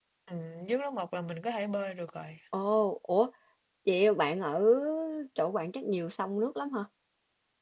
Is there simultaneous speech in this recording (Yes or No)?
No